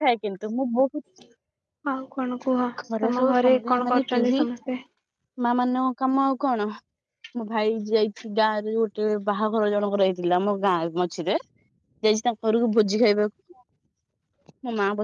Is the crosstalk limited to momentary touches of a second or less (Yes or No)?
No